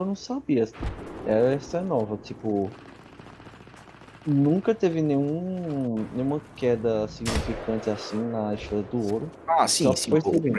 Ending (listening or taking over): taking over